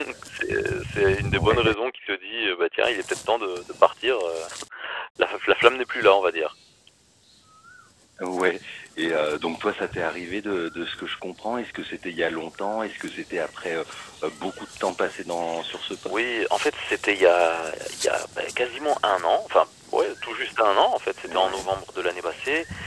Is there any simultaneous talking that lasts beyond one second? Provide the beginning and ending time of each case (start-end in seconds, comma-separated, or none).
none